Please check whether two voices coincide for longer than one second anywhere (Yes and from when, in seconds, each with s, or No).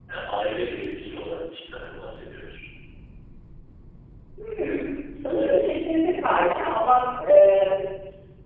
No